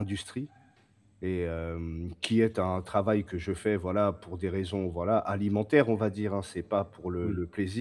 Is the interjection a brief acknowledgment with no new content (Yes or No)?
Yes